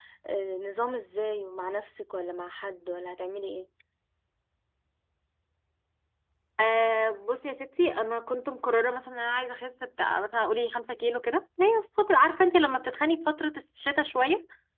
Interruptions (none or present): none